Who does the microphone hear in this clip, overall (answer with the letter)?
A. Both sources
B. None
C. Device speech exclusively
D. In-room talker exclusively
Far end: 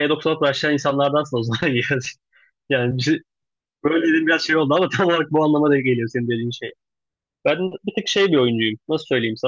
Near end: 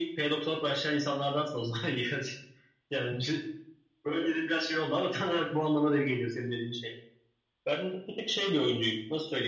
C